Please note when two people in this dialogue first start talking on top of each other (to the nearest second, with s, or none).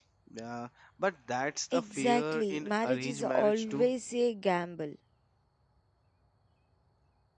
2 s